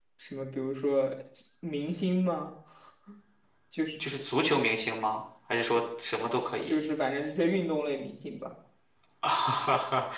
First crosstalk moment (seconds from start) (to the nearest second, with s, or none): none